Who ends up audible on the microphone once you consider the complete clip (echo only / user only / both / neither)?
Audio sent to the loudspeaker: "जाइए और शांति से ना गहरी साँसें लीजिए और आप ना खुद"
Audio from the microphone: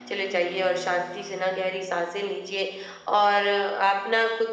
echo only